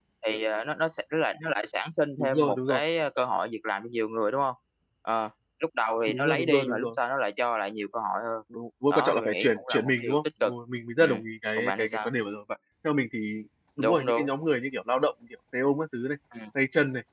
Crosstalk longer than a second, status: present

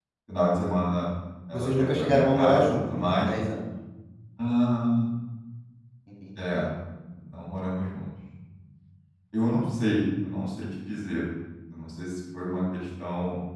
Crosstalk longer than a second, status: present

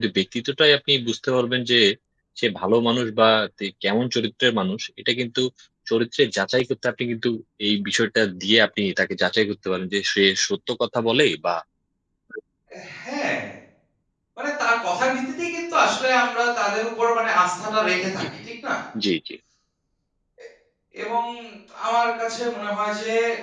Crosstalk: none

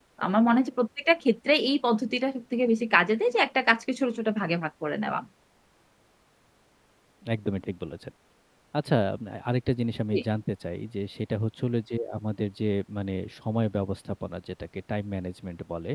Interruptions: none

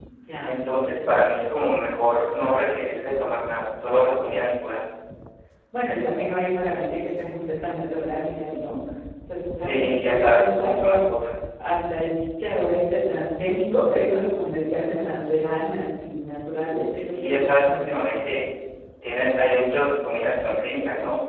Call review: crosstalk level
present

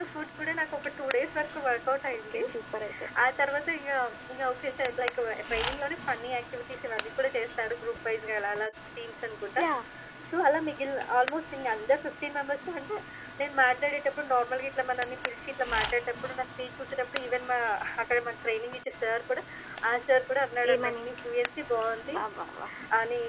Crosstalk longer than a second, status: none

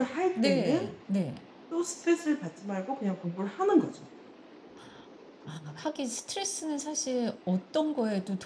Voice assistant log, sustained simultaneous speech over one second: none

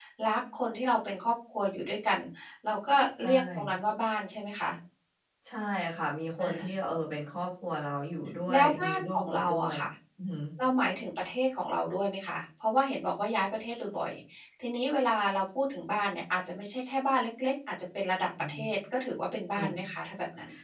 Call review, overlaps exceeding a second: present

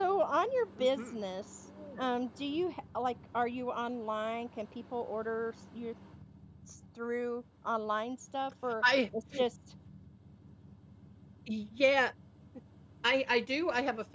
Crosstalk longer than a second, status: none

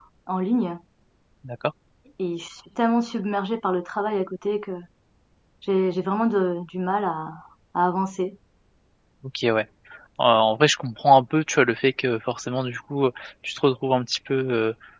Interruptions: none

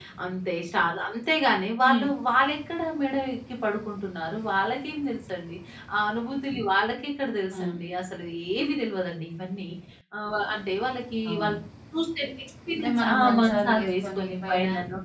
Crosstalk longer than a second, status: present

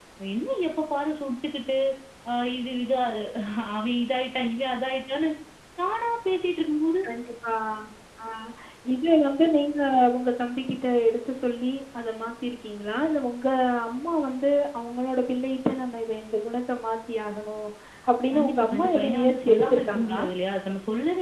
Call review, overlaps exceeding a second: present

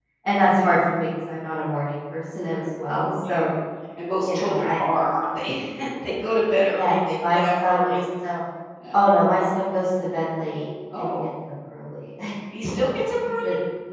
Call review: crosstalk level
present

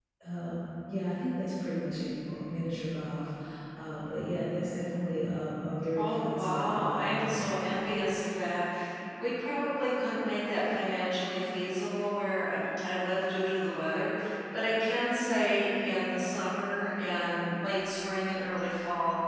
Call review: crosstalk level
present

